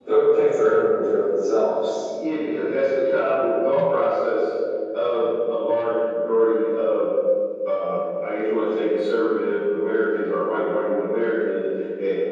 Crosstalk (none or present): none